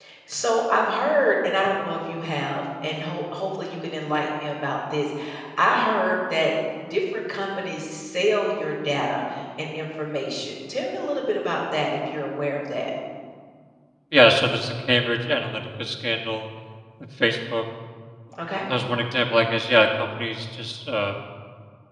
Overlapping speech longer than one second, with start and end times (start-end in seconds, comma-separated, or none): none